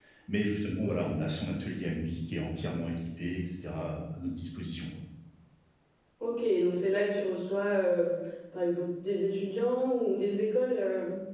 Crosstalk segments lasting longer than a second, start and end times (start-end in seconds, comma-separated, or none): none